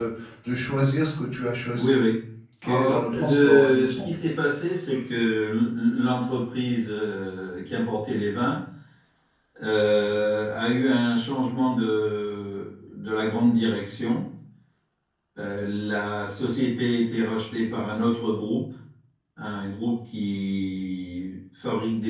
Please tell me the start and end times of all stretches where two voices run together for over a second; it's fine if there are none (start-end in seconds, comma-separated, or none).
2.6-4.1